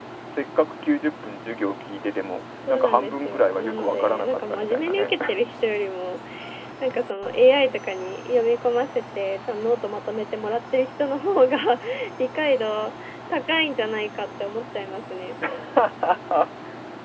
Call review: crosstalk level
present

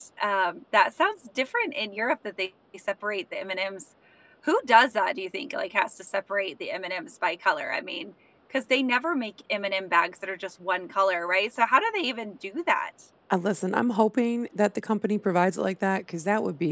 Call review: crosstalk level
none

